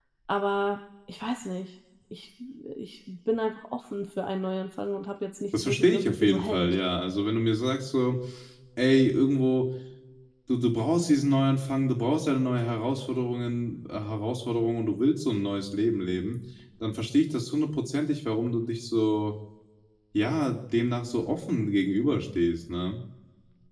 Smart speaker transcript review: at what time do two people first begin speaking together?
5.5 s

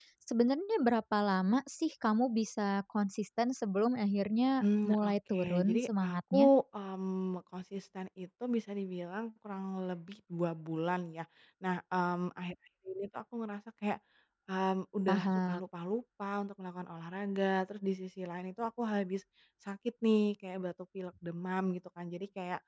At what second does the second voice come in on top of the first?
4.6 s

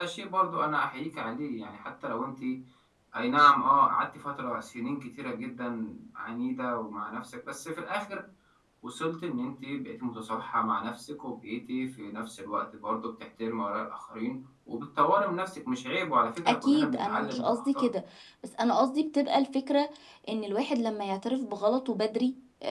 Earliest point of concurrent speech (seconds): 16.4 s

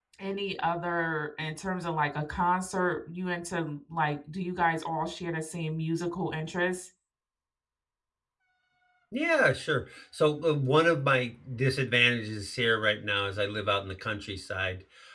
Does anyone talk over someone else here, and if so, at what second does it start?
none

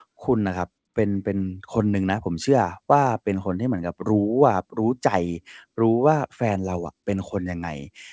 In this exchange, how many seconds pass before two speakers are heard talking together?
none

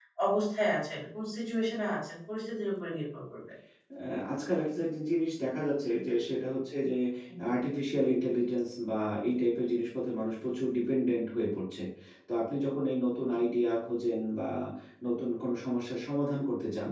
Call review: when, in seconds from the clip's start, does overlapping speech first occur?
none

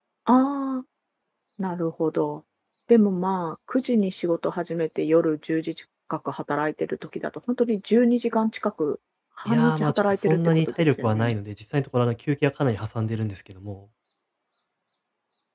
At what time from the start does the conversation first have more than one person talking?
9.5 s

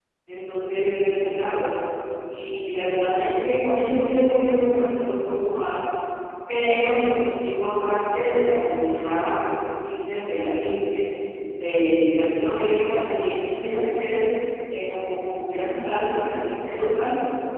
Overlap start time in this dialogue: none

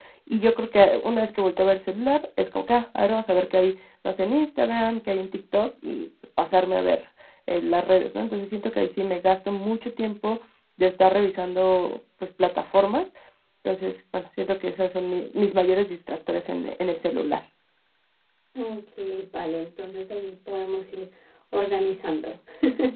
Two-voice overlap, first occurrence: none

